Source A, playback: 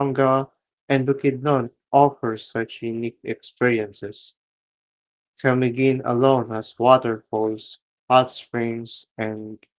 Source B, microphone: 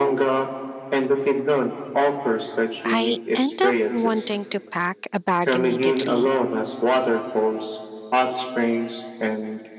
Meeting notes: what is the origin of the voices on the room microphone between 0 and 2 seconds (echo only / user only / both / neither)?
echo only